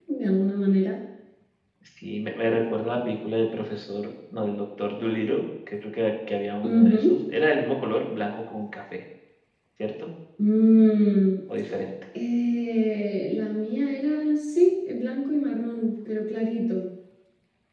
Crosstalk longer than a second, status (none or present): none